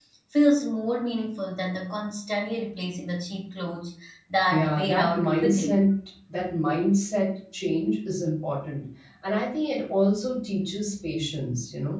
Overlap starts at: 5 s

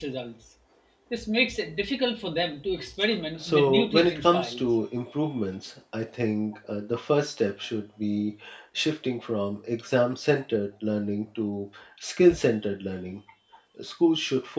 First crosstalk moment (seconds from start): 3 s

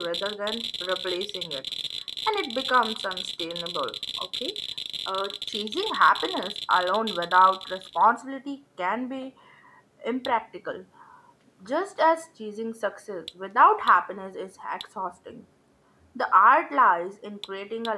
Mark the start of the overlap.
none

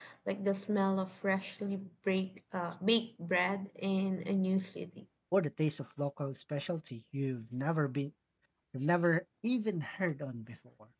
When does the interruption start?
none

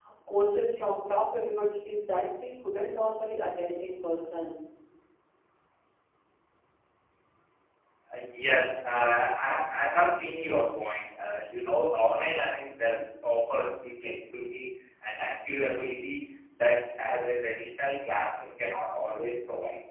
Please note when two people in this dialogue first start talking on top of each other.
none

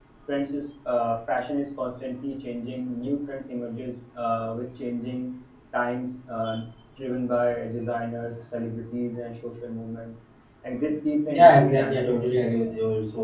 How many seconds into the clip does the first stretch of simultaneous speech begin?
11 s

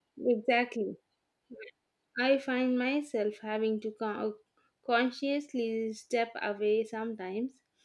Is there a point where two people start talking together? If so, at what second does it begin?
none

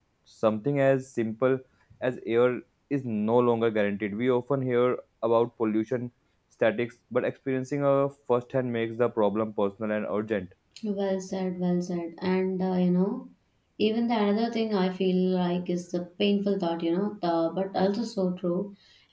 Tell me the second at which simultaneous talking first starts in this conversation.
none

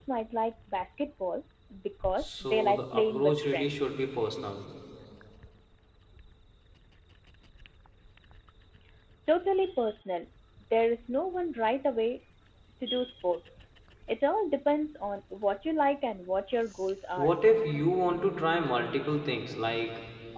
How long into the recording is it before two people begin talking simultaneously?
2 s

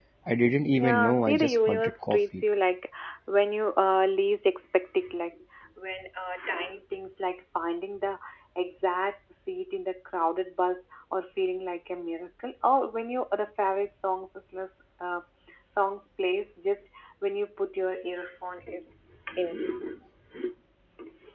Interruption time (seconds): 1 s

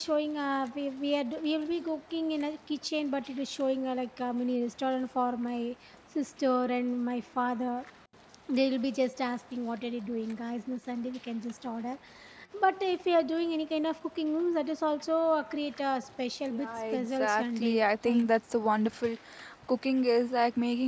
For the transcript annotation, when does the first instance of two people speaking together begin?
17 s

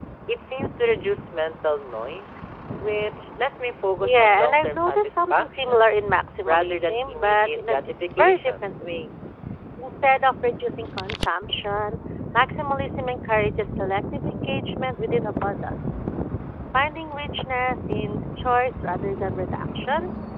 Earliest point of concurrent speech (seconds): 4 s

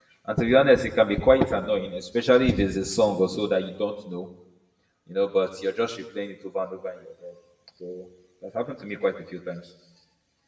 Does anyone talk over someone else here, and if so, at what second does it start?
none

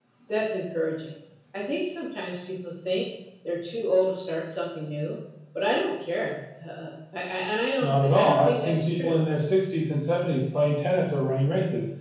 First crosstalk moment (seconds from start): 8 s

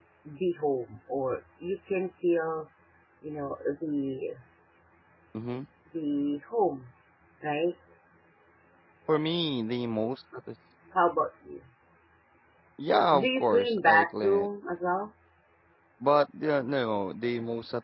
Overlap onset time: 13 s

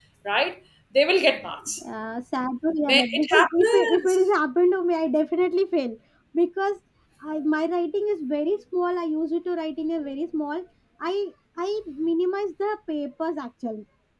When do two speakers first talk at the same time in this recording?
3 s

